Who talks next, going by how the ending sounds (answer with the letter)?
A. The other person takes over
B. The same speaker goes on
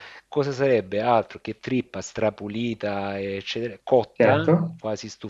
B